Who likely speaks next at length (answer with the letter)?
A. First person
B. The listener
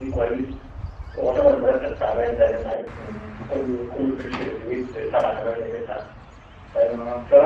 A